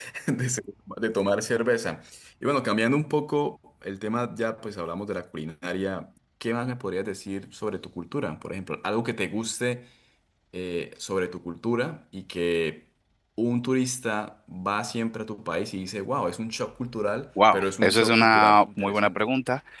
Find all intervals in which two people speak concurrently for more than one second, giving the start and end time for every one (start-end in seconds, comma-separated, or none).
17.5-19.3